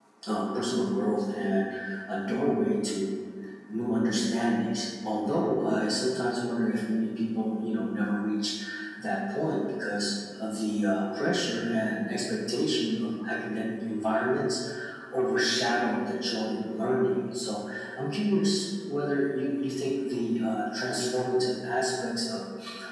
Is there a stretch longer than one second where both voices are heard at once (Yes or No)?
No